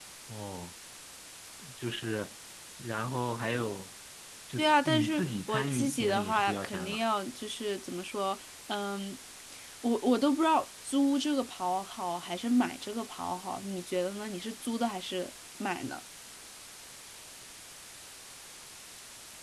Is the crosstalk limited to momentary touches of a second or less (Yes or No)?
No